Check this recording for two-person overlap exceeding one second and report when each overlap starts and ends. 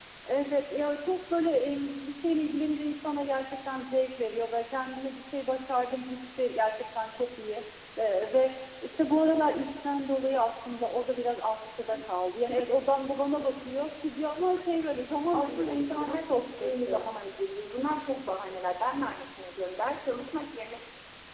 15.3-17.1

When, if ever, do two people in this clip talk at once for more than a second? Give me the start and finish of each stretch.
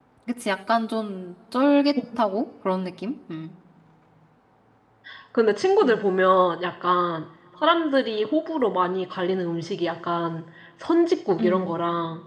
none

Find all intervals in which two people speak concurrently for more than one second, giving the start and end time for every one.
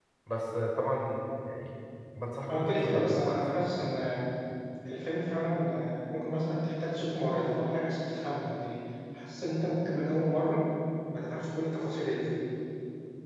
2.5-3.7

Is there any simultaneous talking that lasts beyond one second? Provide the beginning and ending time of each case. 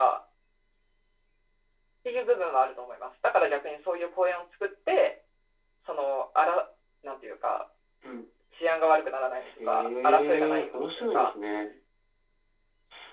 9.7-11.3

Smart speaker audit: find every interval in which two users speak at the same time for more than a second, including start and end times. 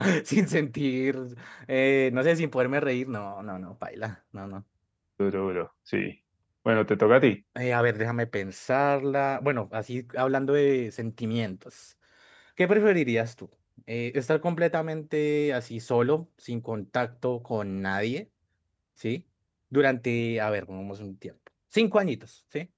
none

